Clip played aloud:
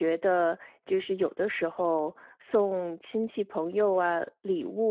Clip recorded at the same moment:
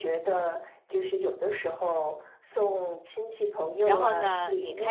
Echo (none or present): present